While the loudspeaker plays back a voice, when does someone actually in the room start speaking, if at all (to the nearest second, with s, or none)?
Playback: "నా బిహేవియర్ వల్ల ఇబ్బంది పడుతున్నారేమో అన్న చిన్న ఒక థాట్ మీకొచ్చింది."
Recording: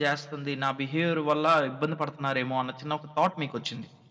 none